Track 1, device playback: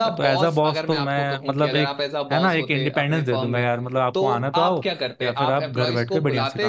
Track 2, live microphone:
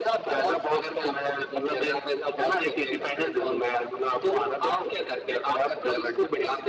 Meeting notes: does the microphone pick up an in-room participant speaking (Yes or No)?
No